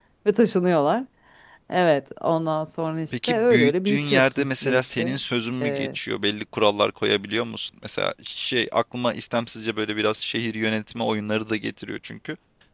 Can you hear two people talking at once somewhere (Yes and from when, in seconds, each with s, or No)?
Yes, from 3.1 s